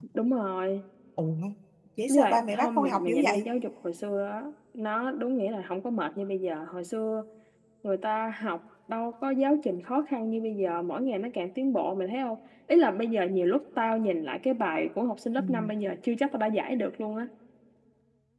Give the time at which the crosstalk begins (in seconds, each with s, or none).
2.1 s